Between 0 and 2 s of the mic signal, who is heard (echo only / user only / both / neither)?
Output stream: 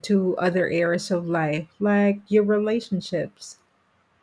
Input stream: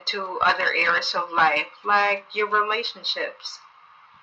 echo only